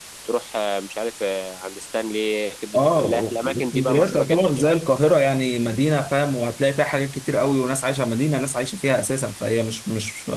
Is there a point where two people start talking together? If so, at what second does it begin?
2.7 s

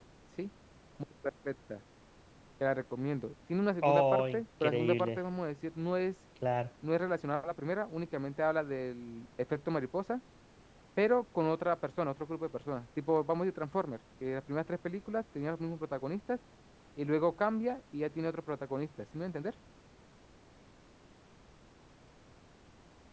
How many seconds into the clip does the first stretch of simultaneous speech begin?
3.8 s

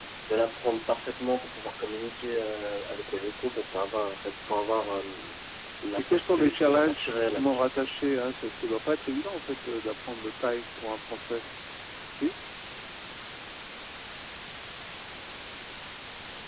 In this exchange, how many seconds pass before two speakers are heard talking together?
6.0 s

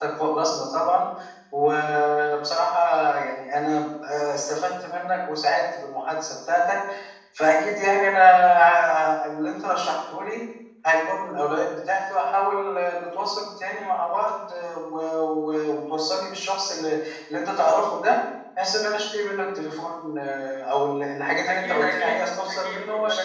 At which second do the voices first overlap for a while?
21.4 s

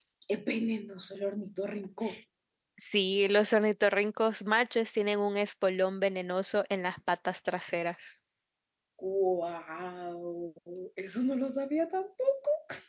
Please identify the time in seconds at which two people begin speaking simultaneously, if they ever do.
none

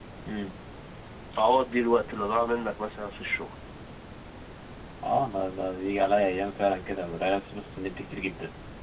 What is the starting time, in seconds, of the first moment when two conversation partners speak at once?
none

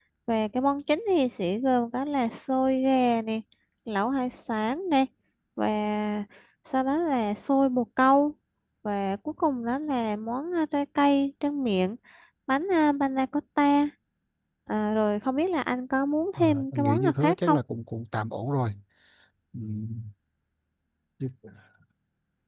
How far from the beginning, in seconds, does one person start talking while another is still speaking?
16.4 s

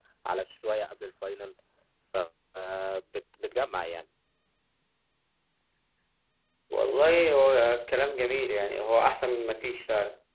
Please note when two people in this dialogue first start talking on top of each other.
none

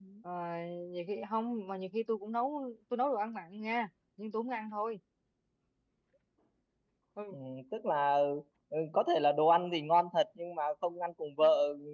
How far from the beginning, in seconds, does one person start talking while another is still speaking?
none

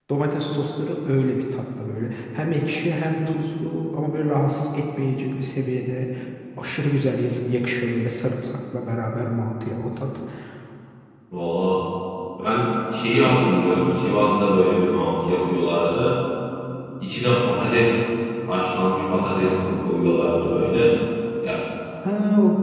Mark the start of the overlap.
none

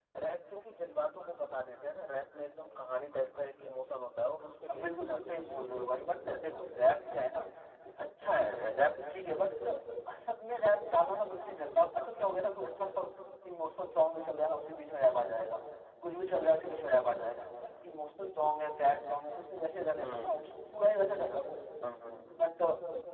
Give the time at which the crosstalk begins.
4.7 s

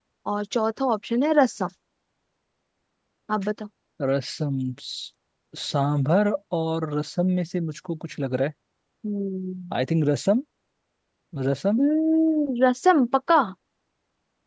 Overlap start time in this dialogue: none

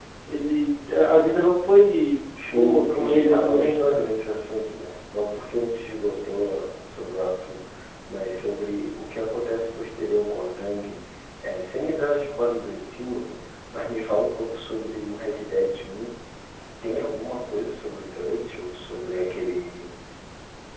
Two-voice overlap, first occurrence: 2.3 s

